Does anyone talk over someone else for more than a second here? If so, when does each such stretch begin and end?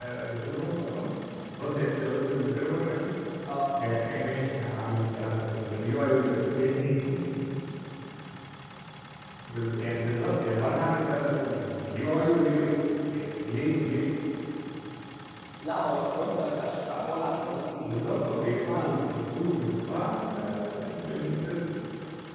17.8-19.2

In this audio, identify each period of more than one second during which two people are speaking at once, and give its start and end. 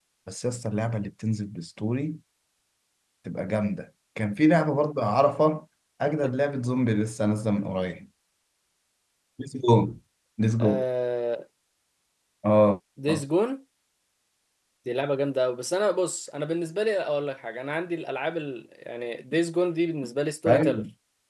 none

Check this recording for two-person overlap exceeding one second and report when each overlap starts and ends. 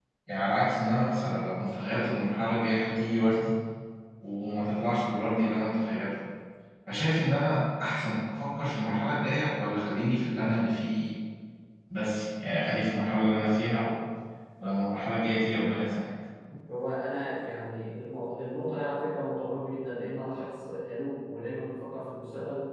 none

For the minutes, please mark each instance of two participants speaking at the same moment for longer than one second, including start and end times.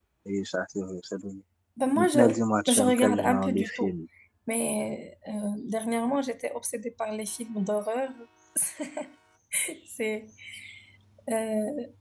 2.7-3.9

